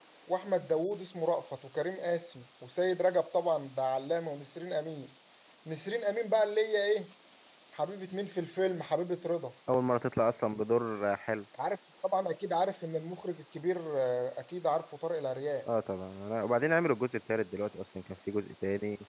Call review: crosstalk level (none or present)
none